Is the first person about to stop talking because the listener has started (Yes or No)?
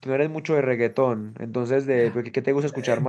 Yes